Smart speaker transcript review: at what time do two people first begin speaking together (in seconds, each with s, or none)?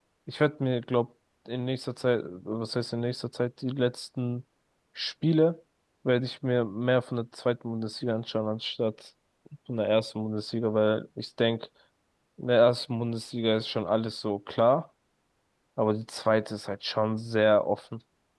none